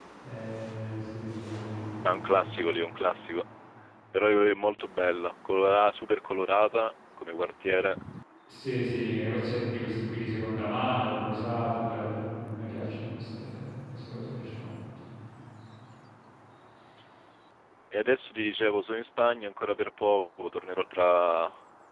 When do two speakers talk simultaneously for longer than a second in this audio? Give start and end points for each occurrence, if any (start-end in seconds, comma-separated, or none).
none